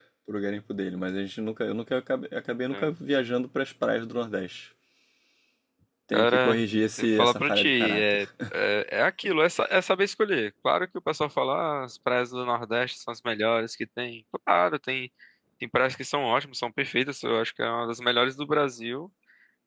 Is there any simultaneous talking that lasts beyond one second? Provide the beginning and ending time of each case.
7.0-8.2

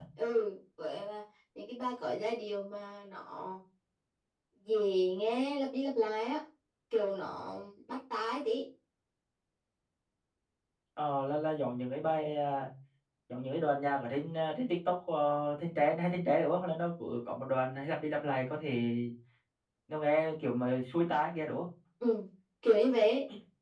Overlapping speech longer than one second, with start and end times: none

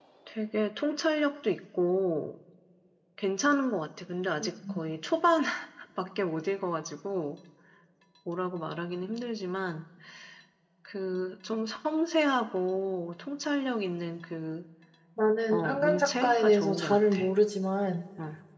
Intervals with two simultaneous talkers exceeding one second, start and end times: 15.5-17.2

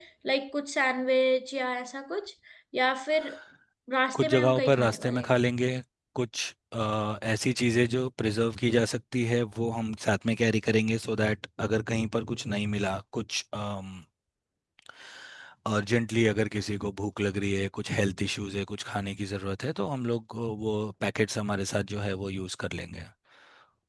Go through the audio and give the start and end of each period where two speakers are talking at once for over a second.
4.1-5.3

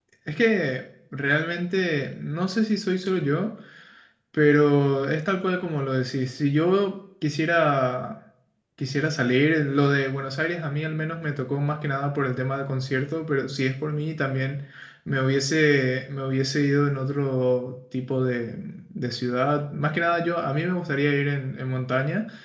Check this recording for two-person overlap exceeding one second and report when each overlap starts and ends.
none

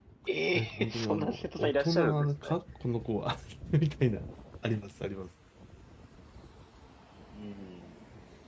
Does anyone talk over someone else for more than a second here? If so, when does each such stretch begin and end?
0.5-2.5

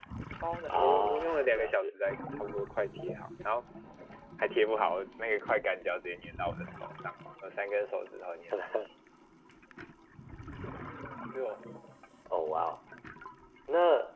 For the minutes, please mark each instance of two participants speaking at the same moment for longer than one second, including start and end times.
0.7-1.9

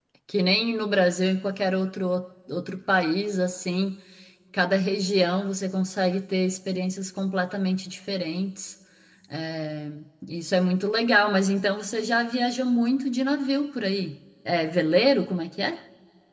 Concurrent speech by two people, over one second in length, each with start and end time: none

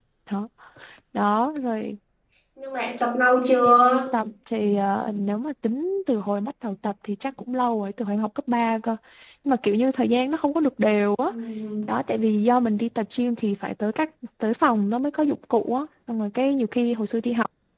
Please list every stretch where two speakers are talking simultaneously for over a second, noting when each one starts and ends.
none

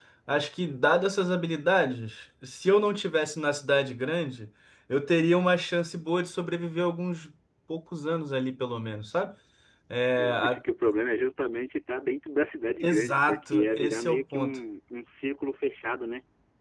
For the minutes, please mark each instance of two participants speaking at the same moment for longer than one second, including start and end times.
12.8-14.6

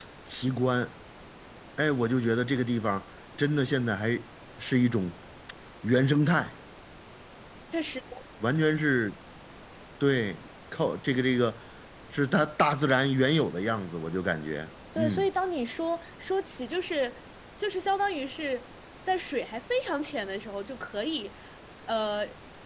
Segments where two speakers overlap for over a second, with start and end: none

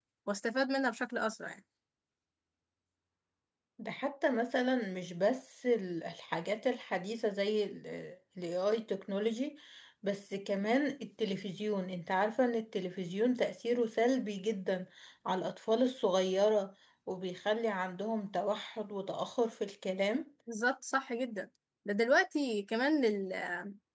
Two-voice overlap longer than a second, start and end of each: none

